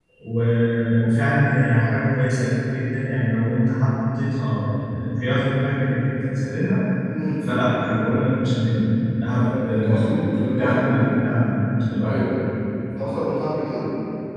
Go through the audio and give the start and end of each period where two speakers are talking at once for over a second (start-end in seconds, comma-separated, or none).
9.3-10.9